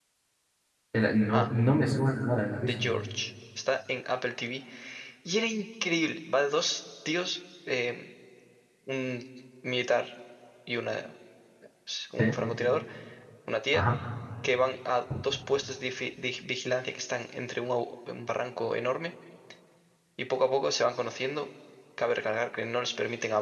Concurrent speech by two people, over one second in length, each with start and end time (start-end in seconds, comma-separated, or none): none